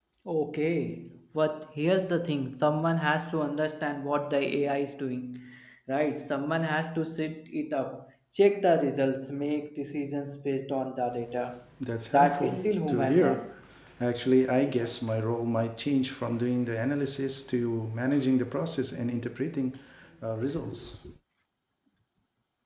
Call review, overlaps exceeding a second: present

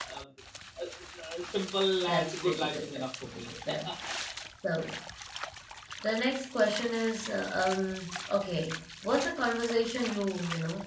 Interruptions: present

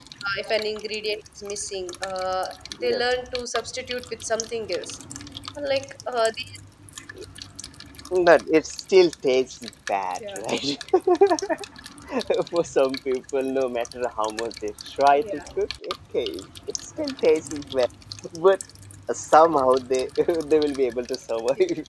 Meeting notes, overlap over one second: none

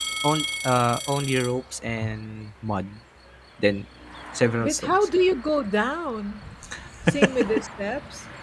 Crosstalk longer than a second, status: none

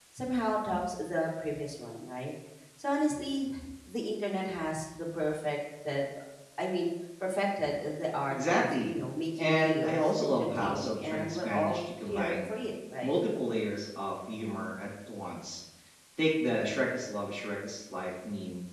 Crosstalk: present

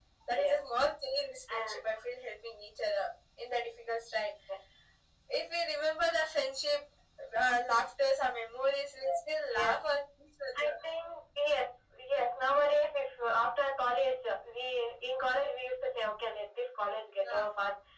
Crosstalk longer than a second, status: none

